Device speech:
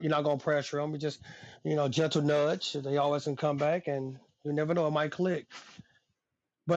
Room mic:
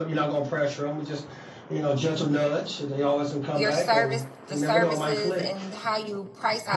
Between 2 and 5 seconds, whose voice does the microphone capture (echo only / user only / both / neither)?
both